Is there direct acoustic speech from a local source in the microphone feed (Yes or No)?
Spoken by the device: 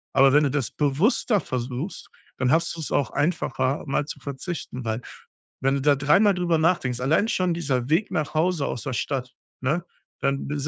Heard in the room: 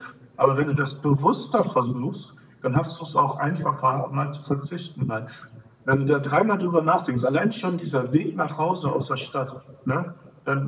No